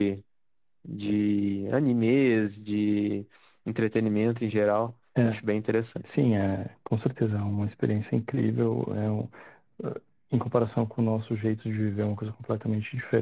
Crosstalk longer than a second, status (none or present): none